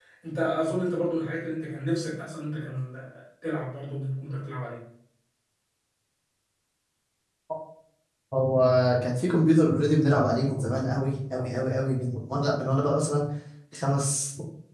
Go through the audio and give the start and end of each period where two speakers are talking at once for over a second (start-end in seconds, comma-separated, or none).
none